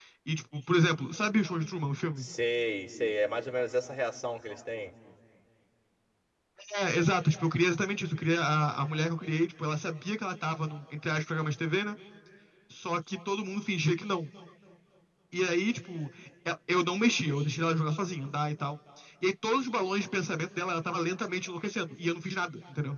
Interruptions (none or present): none